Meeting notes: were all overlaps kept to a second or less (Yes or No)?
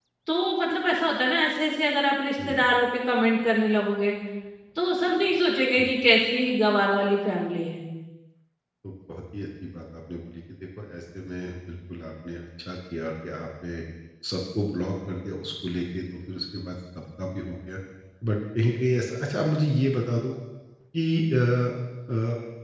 Yes